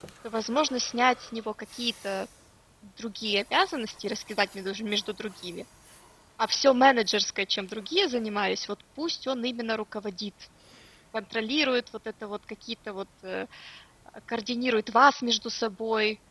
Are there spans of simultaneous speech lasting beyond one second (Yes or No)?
No